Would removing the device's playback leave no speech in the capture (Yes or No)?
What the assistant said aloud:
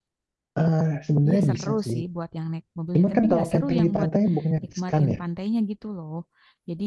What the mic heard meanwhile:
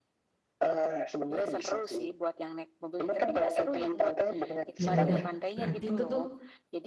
No